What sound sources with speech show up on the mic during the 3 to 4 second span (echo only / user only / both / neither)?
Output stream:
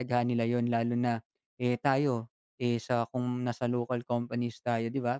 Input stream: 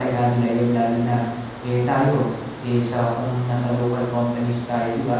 echo only